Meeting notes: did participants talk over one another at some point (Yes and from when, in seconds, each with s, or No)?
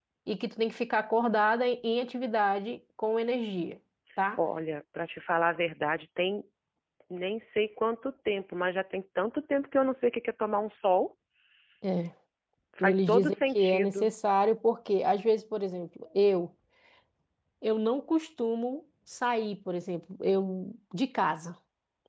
Yes, from 12.8 s